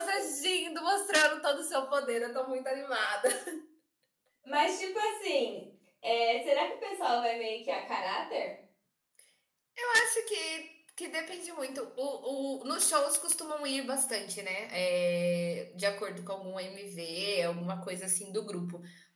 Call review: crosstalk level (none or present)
none